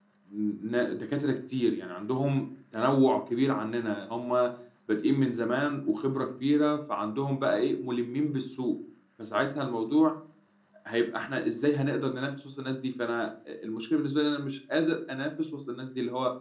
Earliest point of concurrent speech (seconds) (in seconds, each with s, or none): none